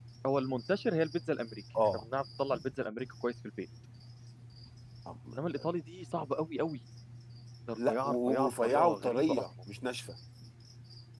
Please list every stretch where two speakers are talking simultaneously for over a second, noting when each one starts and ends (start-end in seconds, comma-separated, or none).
7.8-9.4